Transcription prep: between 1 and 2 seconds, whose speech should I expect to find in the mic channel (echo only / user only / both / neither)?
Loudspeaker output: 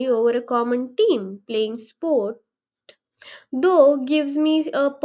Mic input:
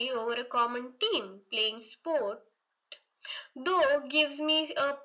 echo only